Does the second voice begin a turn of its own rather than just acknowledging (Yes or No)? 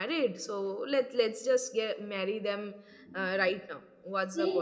Yes